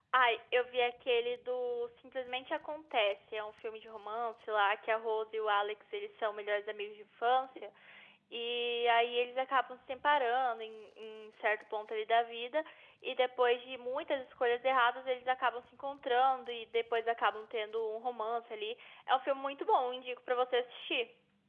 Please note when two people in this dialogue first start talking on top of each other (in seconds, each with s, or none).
none